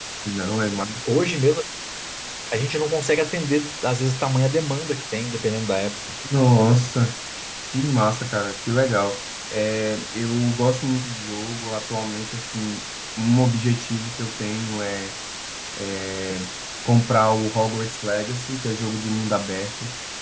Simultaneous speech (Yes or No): No